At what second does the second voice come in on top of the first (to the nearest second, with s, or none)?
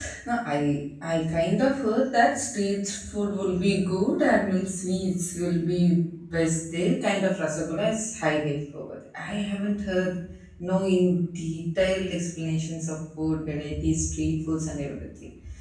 none